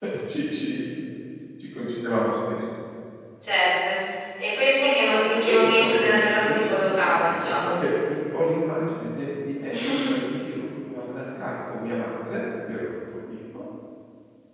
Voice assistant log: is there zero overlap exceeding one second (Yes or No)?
No